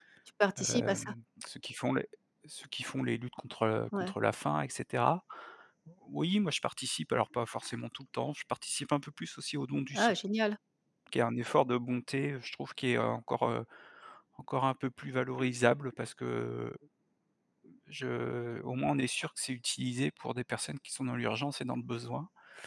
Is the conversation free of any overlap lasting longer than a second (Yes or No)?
Yes